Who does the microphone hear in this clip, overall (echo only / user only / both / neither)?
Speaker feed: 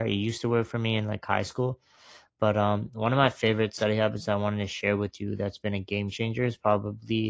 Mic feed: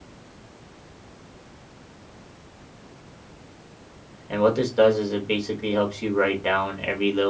user only